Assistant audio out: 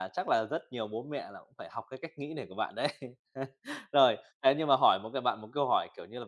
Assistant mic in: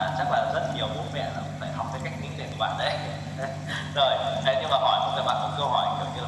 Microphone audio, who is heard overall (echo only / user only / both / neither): echo only